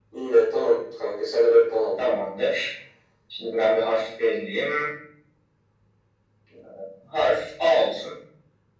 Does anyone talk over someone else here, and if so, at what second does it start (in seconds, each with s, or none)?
none